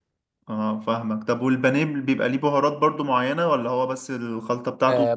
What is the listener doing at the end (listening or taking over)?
taking over